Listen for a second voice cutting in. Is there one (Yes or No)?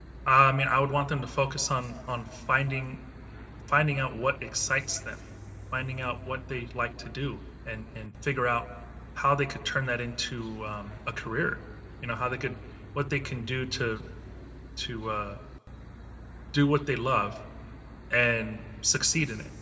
No